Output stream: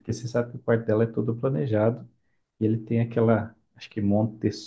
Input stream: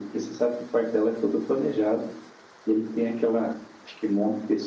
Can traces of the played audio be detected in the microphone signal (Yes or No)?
Yes